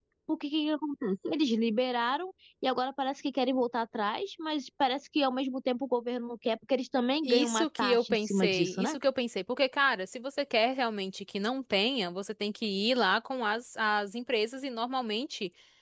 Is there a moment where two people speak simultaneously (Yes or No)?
Yes